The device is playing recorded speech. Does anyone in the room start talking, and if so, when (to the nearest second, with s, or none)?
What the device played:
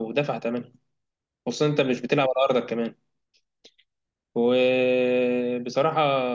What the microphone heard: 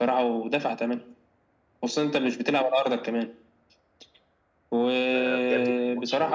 5 s